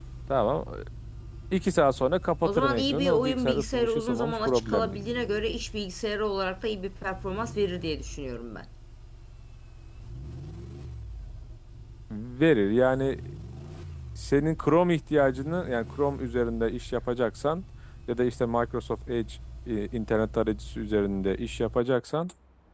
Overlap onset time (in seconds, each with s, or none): 2.4 s